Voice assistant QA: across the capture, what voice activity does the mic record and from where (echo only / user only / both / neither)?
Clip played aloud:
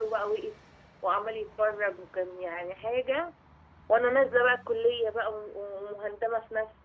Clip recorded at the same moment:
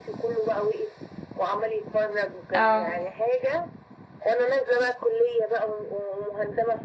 both